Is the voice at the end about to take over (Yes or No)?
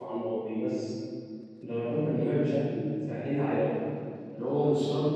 No